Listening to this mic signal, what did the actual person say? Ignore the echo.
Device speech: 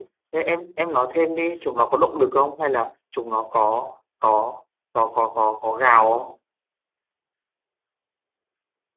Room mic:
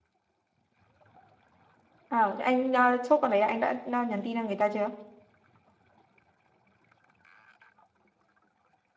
Ờ, thế anh uh, chốt con đấy anh đã uh, nhắn tin cho người ta chưa?

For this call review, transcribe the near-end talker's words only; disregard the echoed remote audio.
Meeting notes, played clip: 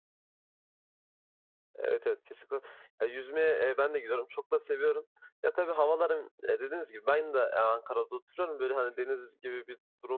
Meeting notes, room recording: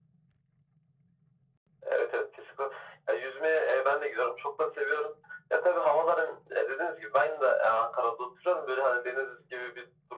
none

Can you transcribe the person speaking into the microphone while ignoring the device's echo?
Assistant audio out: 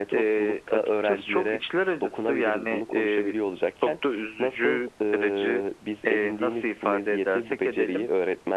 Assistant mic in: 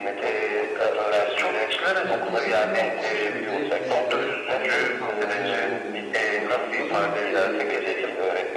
Yani teşekkürler bir şekilde biz de hayatta kalmanın yolunu bulduk. Ya umarım e,

